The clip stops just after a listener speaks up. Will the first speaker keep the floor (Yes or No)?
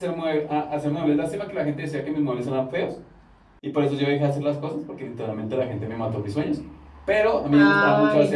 Yes